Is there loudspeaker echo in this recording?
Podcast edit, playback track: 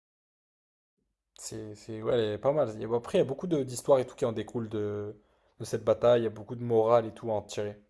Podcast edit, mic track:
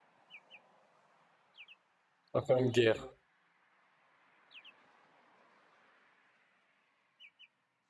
No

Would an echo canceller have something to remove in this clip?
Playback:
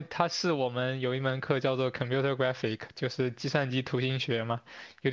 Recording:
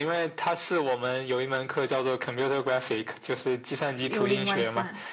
Yes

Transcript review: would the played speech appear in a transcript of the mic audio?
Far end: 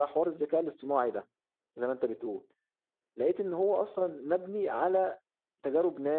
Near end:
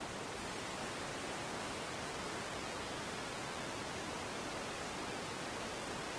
No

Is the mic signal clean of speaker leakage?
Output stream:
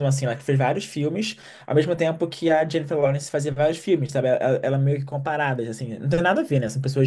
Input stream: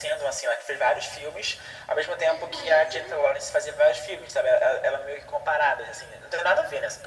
No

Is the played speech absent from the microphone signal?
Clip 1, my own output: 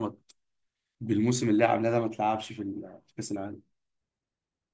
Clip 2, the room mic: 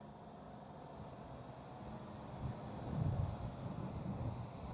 Yes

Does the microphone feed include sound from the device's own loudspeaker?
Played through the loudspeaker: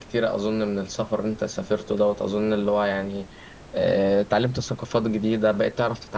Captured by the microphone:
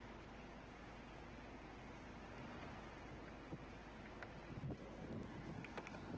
No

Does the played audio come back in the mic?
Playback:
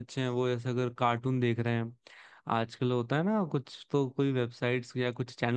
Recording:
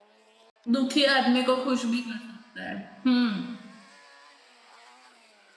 No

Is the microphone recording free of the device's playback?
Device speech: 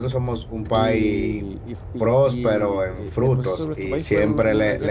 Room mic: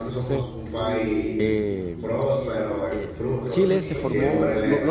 No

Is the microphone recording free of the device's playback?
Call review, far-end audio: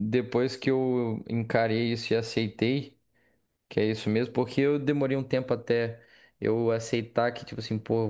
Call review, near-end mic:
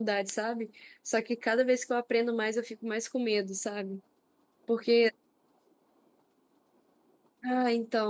Yes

